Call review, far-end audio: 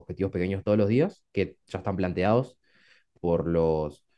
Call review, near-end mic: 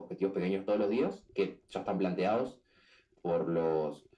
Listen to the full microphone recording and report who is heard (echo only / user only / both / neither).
echo only